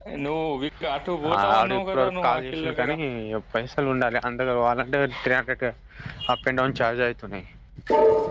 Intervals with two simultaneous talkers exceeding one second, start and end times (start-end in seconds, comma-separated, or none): 1.4-2.9